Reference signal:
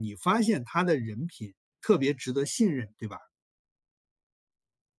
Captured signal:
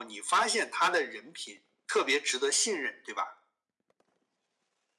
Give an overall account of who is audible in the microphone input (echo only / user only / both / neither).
echo only